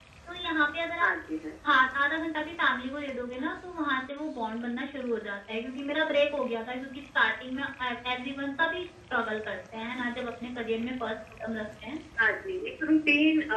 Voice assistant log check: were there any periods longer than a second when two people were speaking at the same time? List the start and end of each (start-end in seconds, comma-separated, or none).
none